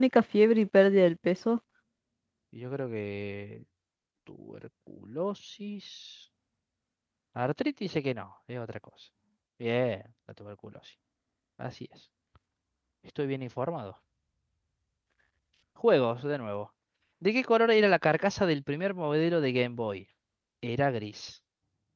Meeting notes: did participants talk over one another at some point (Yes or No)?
No